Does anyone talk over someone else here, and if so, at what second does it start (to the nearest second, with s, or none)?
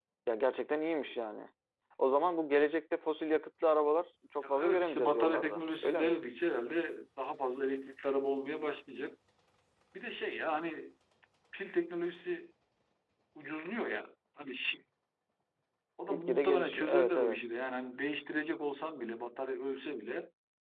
4 s